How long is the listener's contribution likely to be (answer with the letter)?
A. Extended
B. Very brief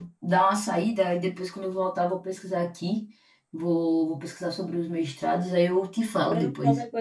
A